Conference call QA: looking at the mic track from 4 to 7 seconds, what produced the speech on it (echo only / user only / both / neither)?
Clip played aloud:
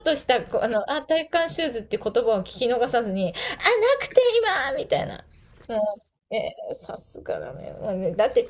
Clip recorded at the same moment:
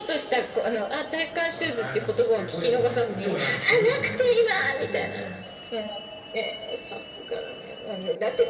both